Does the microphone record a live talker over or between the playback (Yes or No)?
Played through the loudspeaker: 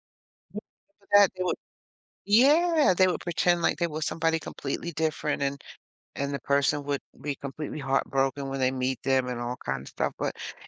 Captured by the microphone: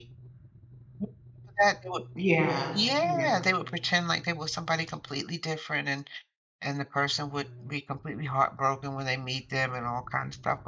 Yes